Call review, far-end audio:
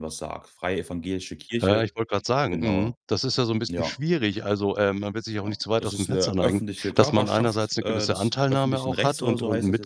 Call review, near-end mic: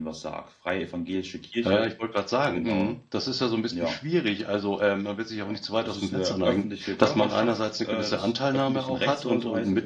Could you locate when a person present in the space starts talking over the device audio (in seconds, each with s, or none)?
none